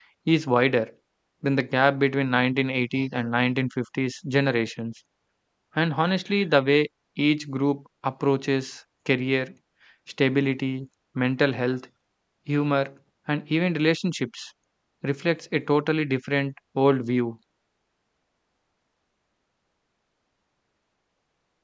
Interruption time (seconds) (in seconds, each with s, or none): none